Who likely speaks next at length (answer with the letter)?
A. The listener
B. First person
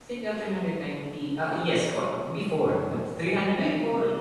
B